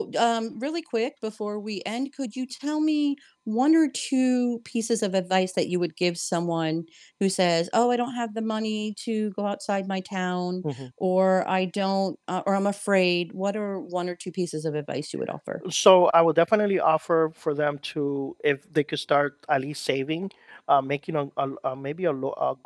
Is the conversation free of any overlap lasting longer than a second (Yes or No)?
Yes